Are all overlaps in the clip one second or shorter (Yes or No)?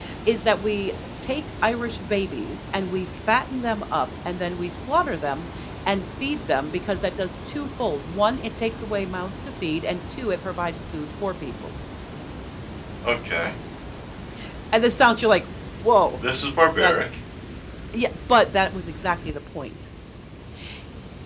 Yes